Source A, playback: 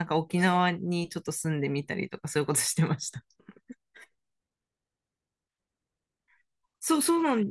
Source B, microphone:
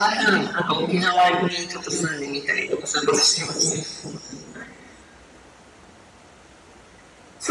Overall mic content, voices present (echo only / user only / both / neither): echo only